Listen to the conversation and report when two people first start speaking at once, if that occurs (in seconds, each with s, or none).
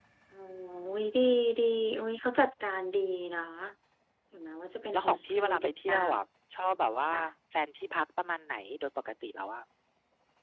4.9 s